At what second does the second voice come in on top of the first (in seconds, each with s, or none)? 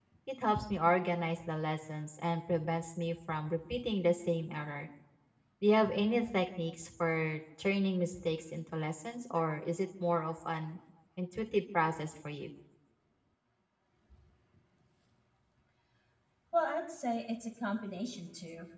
none